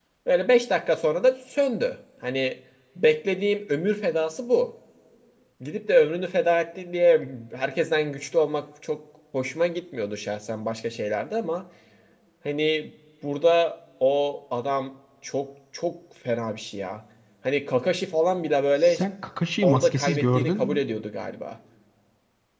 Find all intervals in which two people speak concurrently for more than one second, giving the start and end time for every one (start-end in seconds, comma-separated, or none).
19.6-20.8